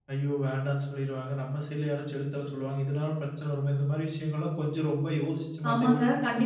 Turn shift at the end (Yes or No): Yes